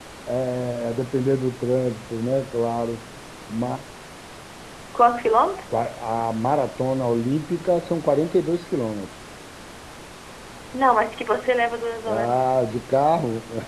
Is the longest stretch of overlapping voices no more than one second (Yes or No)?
Yes